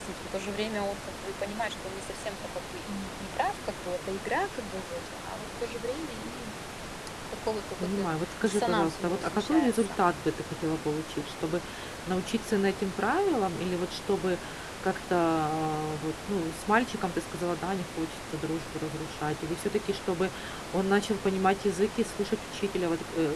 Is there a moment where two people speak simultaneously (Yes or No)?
Yes